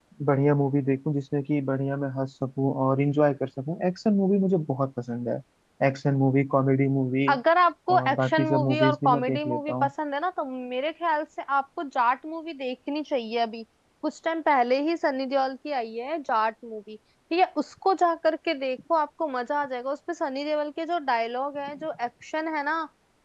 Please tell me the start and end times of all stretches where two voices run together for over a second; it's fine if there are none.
7.9-9.9

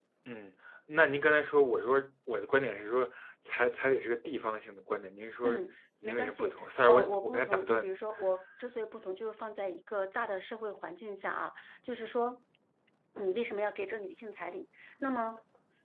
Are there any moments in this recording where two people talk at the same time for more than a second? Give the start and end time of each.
6.0-7.9

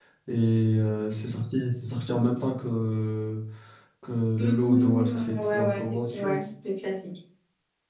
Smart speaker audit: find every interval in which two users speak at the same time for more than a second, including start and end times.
4.6-6.4

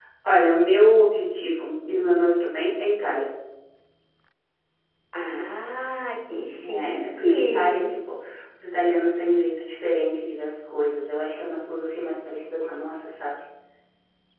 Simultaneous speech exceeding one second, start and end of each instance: 6.6-8.0

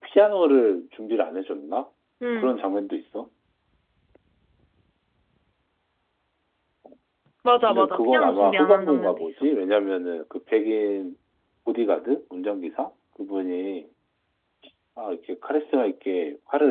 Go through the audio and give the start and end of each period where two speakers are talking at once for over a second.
7.7-9.5

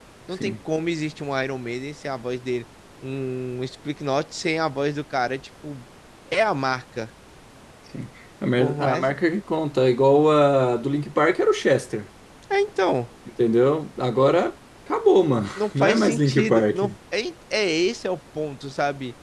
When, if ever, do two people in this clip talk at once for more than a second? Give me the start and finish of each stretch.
15.3-16.8

